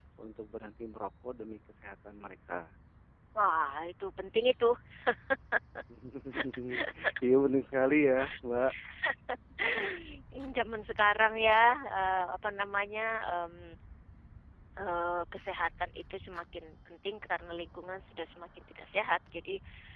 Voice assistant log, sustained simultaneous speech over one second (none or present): none